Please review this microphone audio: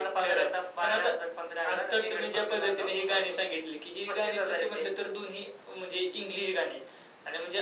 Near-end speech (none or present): none